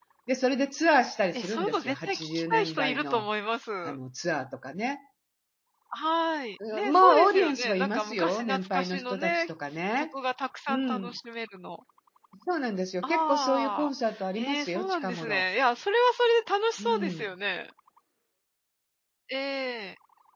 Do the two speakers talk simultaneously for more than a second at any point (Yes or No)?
Yes